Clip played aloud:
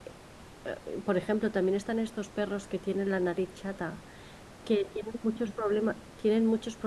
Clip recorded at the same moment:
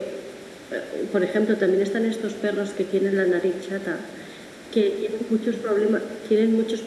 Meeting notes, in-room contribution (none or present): none